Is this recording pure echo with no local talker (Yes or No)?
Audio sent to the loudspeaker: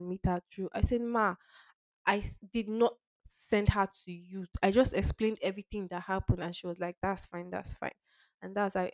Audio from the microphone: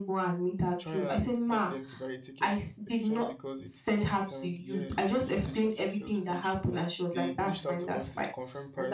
No